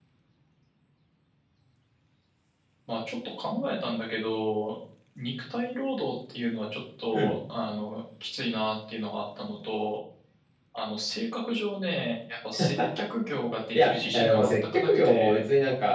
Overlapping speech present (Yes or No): Yes